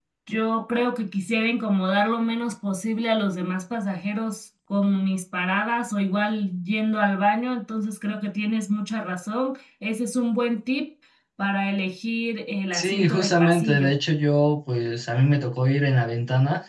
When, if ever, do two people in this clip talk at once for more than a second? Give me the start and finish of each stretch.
12.7-13.9

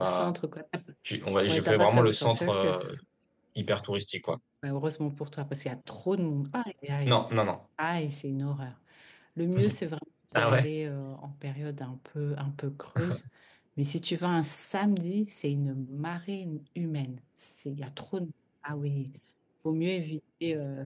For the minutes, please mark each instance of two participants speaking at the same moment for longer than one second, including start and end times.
1.5-2.9

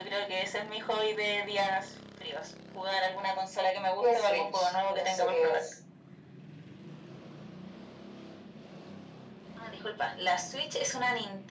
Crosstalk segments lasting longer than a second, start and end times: 4.0-5.6

